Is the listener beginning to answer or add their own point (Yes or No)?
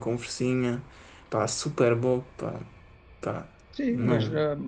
Yes